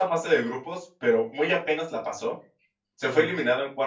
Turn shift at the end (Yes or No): No